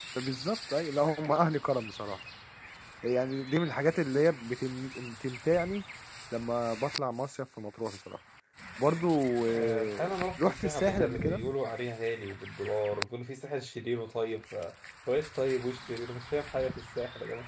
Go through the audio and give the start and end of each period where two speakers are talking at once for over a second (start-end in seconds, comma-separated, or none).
9.5-11.4